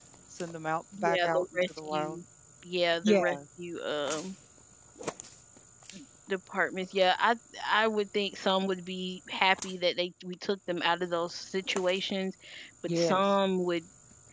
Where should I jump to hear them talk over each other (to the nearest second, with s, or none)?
1 s